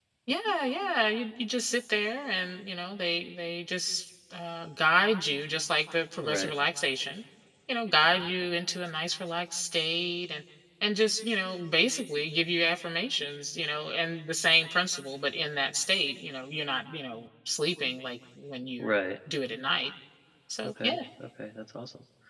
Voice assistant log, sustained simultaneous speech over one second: none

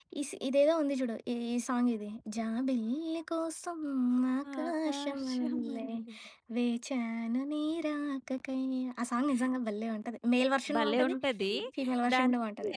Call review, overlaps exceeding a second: present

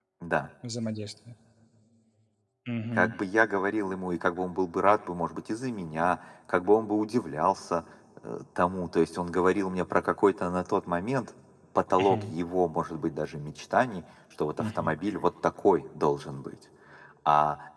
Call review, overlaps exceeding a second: none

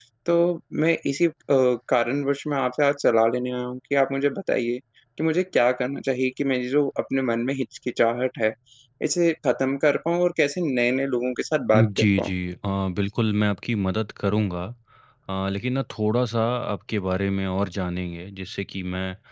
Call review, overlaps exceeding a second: none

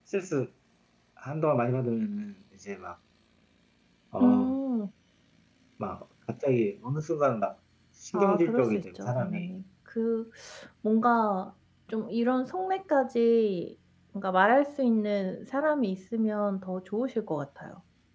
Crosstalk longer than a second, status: present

